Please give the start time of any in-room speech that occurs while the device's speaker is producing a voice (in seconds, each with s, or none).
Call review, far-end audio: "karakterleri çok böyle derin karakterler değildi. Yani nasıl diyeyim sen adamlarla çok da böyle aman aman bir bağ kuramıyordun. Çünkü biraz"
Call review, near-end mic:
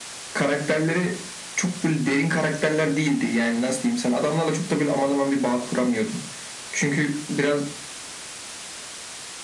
none